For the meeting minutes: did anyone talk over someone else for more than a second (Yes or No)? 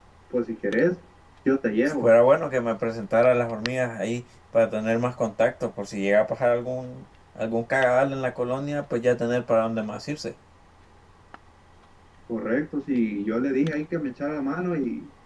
No